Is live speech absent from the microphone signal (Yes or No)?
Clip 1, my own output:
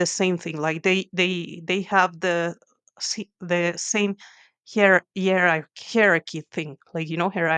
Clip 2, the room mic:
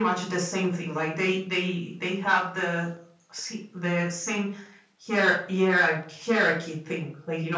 Yes